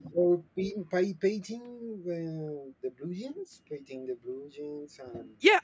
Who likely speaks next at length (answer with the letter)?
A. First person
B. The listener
B